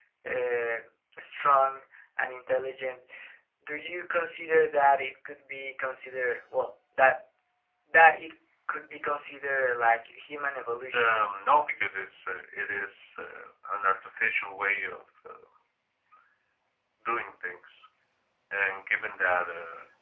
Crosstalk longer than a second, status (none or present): none